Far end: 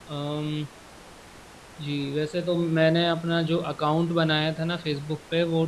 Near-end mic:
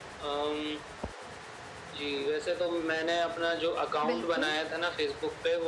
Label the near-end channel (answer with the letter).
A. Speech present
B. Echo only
A